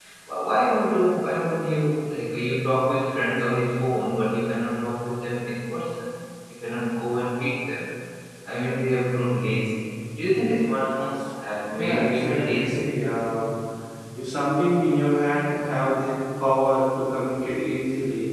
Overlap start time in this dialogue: 11.7 s

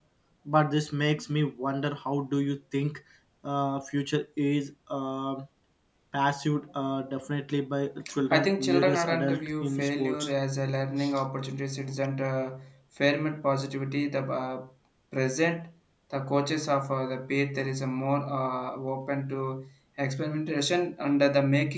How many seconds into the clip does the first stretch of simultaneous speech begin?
8.3 s

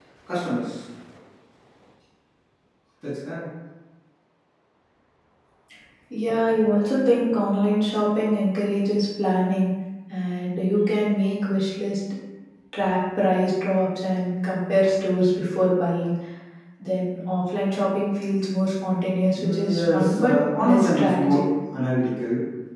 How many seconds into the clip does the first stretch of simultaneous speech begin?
19.3 s

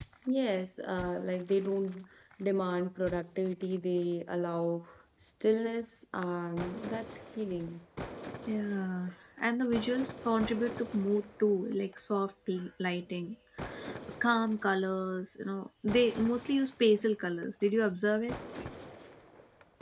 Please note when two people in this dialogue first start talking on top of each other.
none

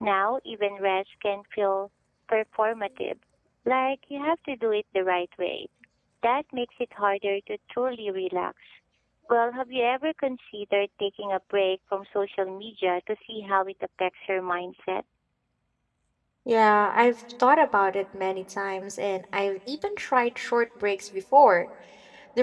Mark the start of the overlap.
none

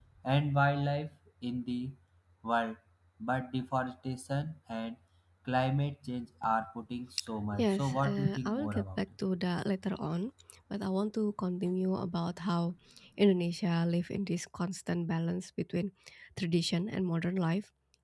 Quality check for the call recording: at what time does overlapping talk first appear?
7.6 s

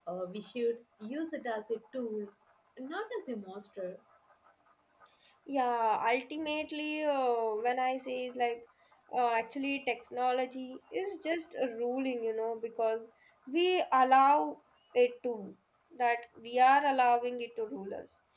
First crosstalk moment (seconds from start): none

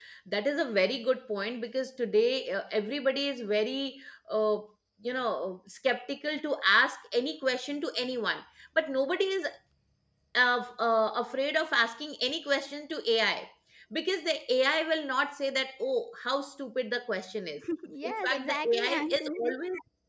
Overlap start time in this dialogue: 18.0 s

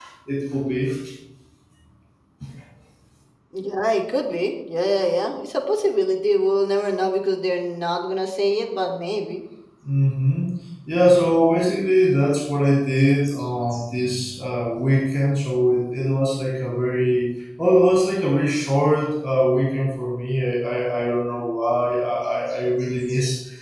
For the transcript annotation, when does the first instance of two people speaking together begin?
none

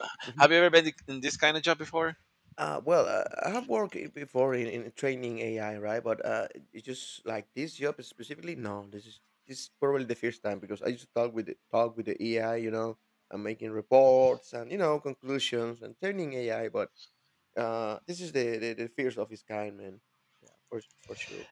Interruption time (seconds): none

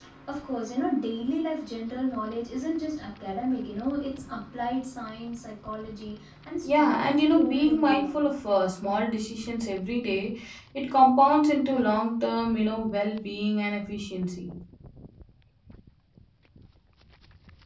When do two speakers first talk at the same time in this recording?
6.6 s

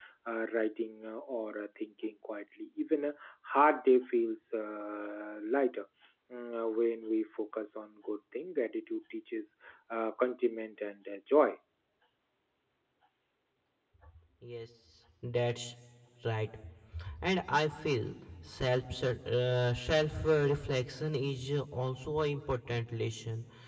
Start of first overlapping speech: none

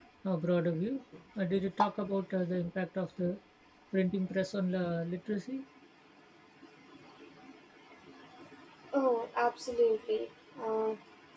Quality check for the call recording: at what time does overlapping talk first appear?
none

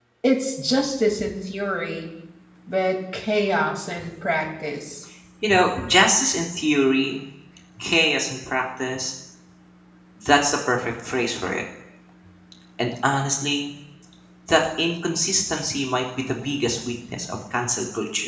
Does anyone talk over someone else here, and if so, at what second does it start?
none

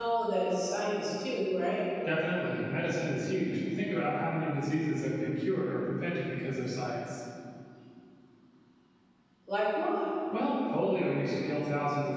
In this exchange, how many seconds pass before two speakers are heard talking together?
none

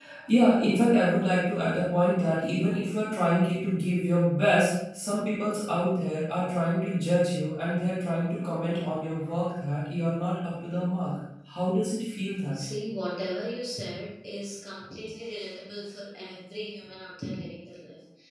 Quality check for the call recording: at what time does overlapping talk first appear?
none

